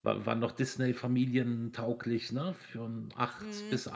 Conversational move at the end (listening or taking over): taking over